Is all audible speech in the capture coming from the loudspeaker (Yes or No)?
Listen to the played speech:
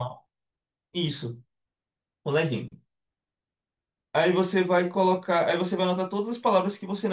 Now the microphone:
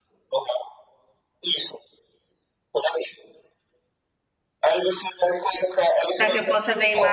No